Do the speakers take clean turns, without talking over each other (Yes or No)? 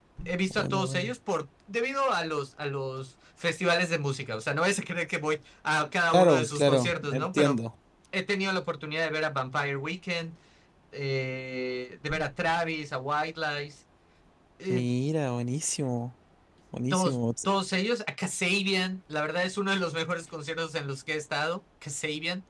No